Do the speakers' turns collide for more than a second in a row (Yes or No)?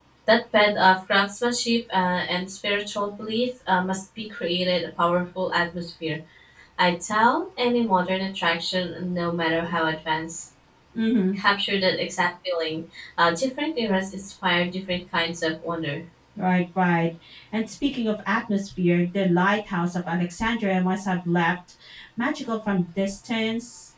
No